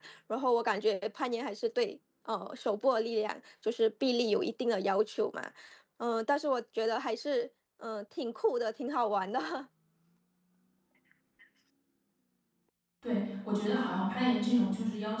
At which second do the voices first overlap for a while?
none

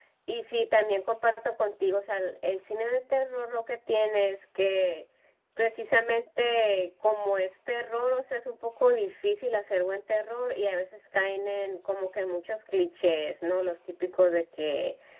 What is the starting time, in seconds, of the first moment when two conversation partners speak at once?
none

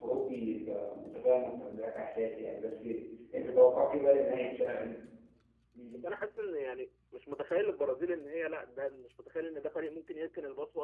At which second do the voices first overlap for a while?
none

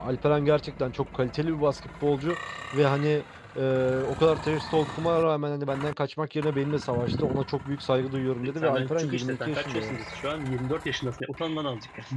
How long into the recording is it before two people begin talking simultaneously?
8.4 s

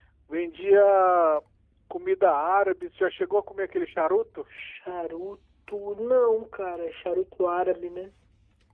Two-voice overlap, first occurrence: none

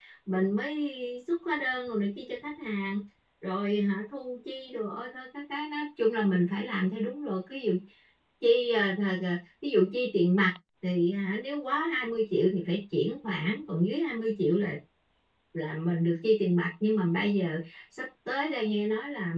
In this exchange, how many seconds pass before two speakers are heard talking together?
none

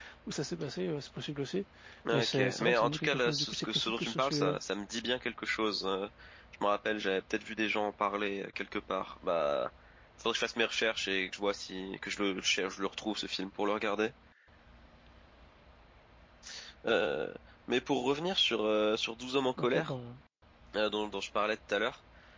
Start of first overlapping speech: 2.1 s

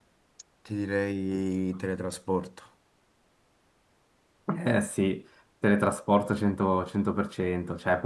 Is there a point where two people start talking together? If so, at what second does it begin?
none

